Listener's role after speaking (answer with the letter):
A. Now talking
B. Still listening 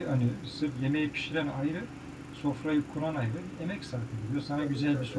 B